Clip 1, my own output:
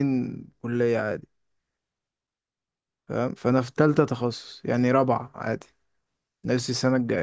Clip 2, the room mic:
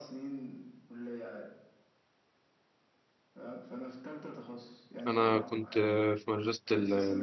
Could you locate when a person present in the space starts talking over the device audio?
5.1 s

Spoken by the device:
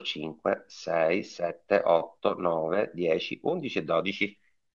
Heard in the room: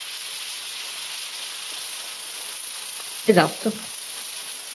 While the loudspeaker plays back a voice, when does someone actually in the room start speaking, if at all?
3.2 s

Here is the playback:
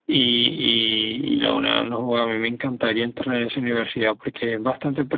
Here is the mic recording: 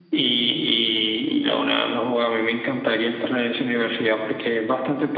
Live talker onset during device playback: none

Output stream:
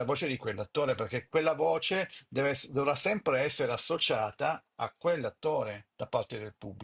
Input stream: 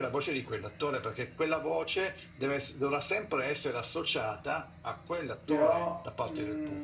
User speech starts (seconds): 5.4 s

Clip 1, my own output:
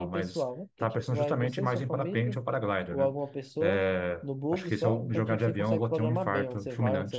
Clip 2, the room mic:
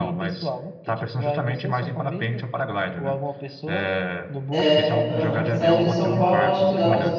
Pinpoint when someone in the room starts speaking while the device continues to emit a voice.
4.5 s

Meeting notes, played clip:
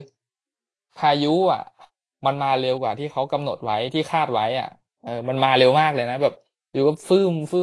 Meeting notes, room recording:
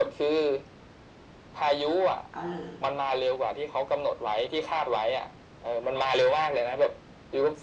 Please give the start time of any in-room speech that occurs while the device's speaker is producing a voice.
2.3 s

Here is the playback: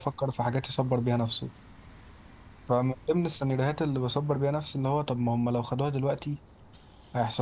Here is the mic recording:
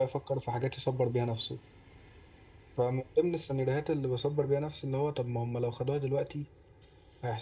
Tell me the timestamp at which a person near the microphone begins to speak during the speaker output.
none

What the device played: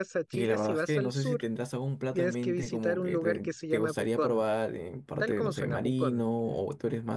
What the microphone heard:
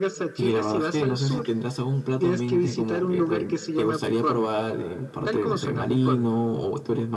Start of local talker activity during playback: none

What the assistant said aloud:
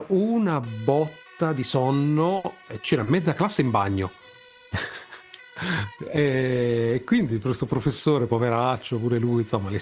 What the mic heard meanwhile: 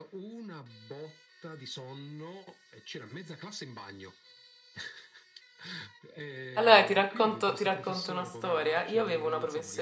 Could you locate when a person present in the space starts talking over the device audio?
6.6 s

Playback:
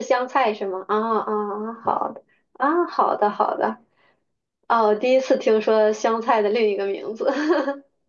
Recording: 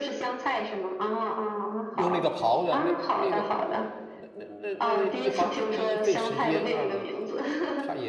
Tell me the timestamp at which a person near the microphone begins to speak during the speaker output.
1.9 s

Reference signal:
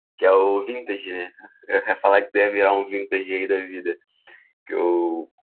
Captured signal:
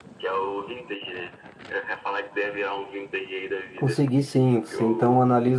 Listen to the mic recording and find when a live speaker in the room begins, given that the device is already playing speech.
3.8 s

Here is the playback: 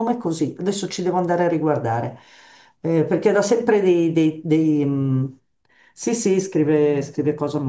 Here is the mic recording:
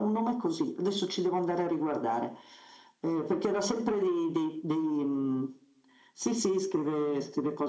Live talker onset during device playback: none

